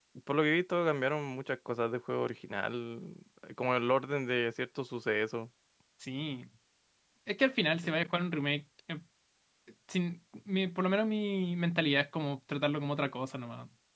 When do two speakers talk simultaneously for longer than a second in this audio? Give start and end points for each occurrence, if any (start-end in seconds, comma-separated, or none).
none